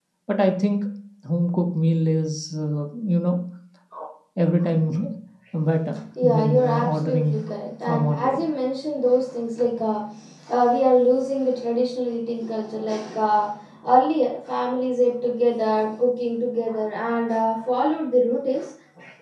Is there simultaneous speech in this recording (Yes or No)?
Yes